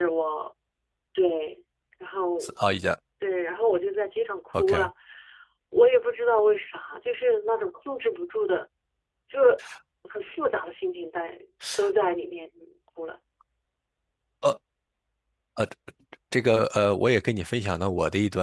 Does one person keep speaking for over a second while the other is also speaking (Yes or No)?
No